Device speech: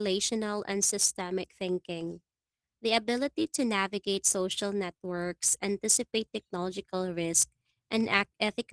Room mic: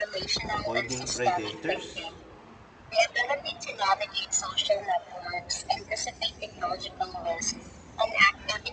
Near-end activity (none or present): present